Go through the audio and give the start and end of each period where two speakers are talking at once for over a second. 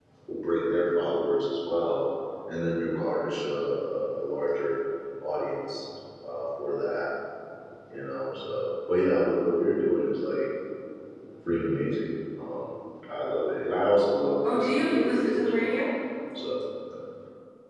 14.5-15.7

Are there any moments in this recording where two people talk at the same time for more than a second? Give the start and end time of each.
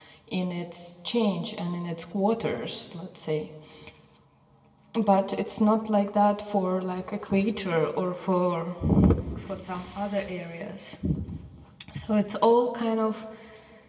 none

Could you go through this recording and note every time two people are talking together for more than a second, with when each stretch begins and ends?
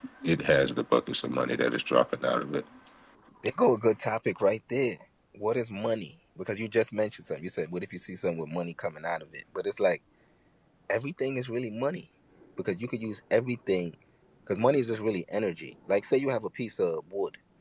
none

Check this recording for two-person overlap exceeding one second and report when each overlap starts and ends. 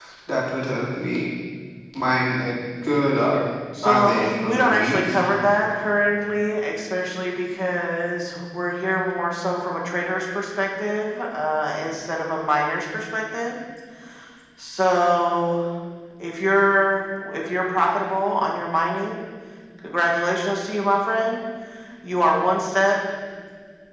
3.8-5.3

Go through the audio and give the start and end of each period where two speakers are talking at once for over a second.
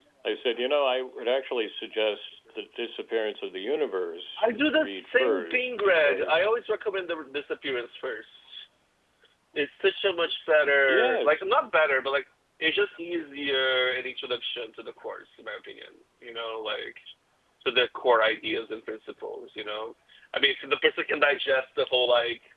4.4-6.4

